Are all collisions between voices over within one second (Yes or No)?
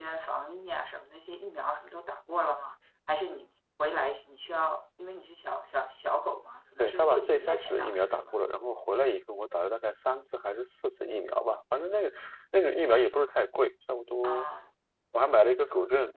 No